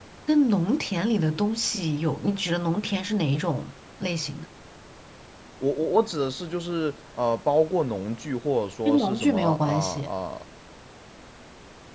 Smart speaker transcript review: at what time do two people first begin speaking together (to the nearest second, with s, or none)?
9 s